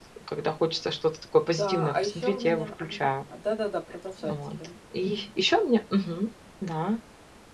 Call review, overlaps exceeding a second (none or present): present